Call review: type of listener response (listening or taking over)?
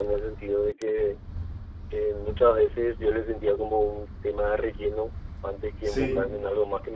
listening